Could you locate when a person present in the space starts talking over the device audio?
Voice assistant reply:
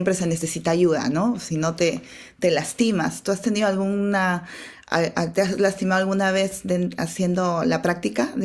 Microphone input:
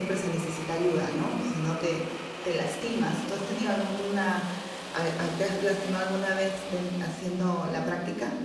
none

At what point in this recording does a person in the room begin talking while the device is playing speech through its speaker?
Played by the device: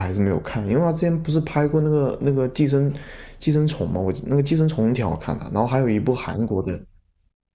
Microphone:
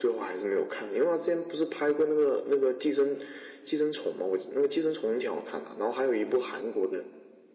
none

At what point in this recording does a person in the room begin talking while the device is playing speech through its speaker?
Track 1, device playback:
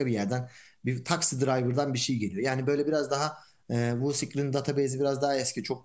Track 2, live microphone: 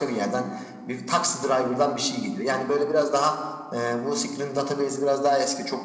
none

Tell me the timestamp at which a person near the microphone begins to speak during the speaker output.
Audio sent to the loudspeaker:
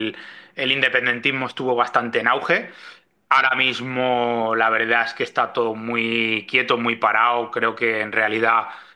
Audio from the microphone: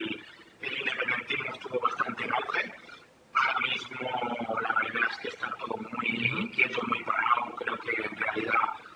6.1 s

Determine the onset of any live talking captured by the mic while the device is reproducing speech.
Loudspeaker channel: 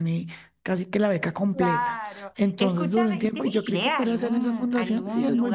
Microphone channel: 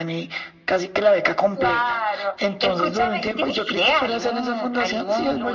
none

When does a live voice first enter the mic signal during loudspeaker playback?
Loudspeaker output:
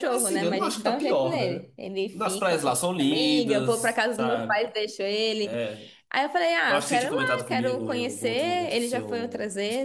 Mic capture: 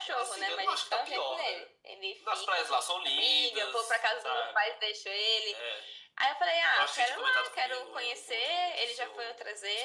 none

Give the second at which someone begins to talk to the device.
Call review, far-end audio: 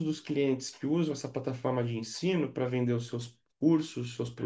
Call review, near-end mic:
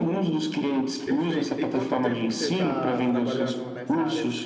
1.0 s

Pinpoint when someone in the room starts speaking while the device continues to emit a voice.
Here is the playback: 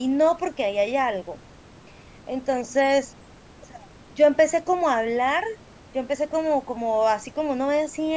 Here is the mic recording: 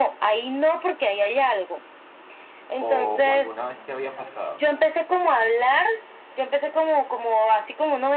2.8 s

